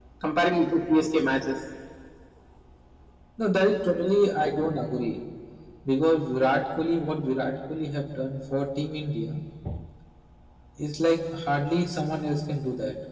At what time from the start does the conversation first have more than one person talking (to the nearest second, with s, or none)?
none